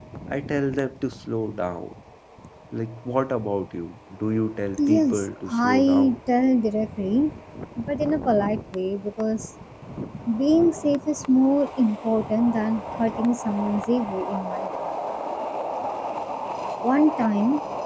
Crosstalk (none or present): present